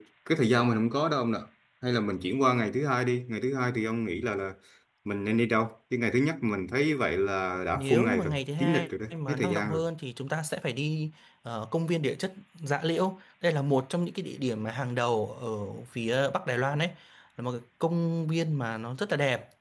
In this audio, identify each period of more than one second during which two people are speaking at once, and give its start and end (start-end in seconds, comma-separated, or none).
7.7-9.8